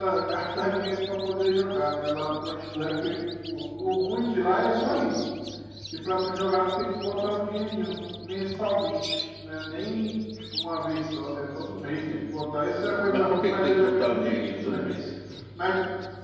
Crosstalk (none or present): present